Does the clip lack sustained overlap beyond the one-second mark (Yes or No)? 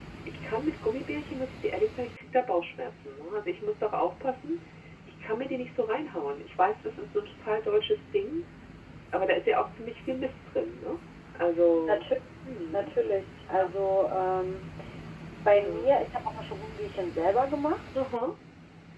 Yes